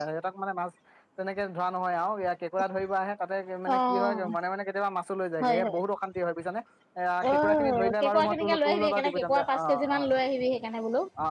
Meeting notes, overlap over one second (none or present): present